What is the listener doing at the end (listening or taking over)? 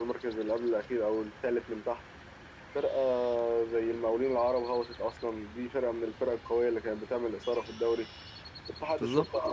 listening